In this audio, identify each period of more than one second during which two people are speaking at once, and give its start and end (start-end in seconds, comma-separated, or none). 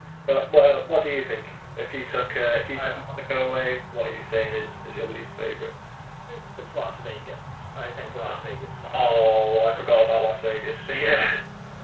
none